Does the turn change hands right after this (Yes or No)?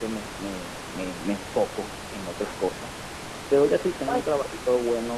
No